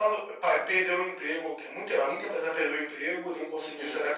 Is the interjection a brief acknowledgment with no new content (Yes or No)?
Yes